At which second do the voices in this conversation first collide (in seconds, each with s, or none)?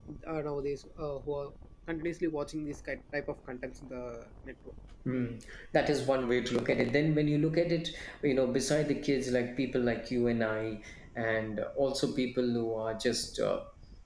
none